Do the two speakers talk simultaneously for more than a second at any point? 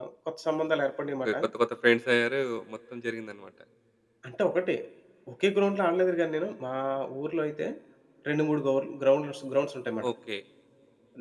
No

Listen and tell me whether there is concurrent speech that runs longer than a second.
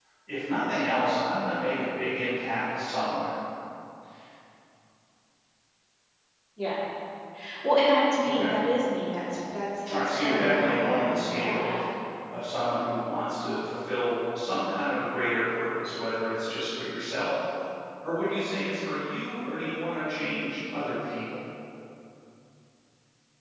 Yes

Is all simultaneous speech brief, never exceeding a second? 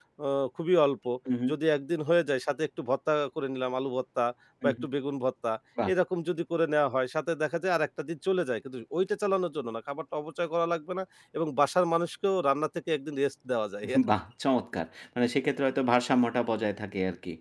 Yes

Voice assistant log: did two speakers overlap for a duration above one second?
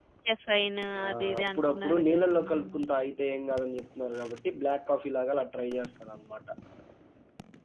Yes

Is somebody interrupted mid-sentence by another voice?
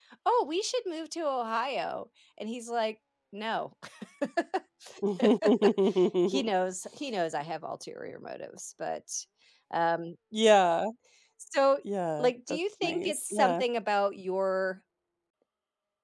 Yes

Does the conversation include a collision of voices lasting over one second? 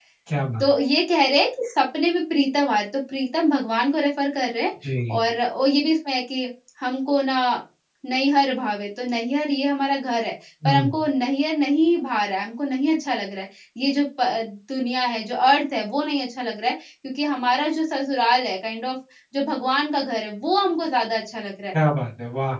No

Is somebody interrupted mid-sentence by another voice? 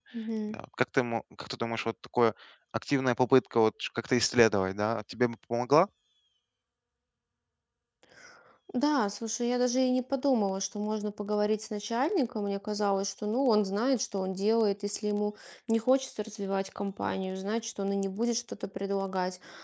No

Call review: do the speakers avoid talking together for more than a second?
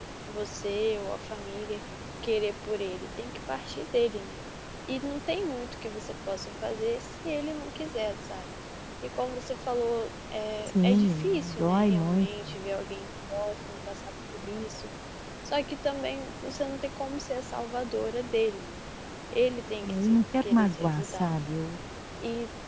No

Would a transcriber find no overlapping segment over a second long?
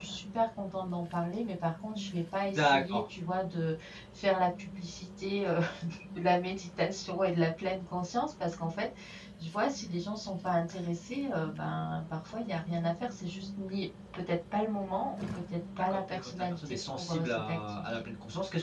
No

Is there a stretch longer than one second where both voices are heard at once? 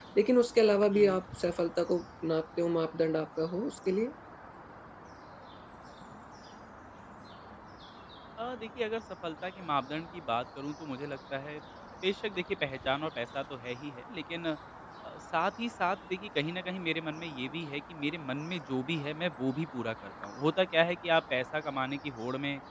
No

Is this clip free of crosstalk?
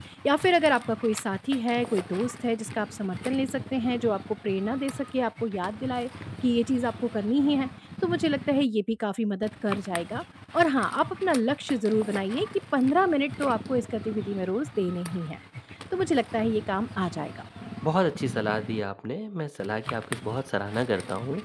Yes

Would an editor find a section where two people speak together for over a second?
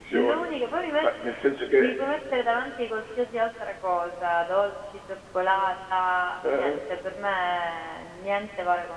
No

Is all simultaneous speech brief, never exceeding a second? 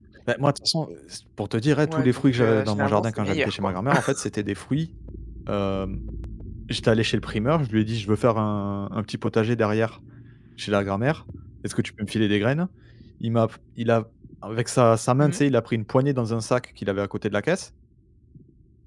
No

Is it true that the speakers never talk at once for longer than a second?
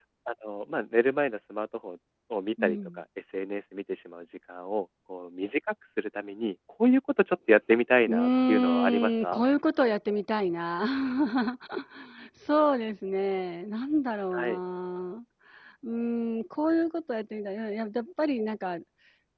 No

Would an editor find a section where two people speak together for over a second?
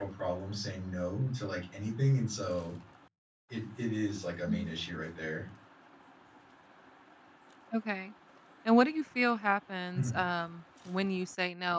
No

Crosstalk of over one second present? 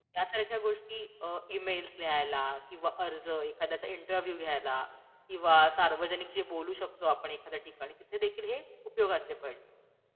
No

